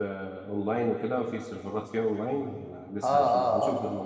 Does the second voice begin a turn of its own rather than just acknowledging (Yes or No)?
Yes